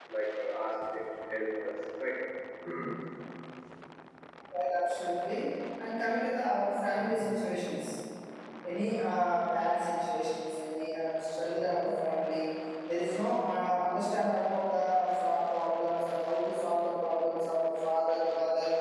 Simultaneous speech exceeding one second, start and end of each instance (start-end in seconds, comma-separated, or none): none